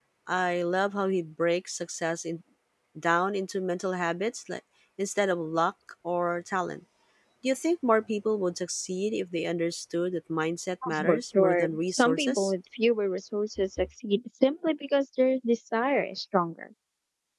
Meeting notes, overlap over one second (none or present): present